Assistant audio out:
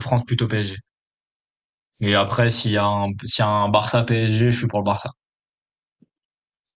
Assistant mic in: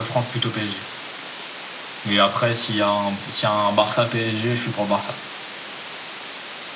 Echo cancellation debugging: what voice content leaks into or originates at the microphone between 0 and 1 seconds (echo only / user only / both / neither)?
echo only